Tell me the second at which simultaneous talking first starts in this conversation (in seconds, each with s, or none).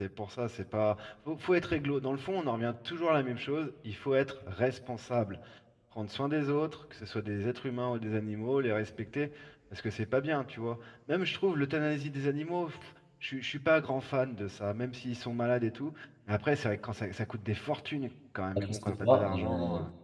18.6 s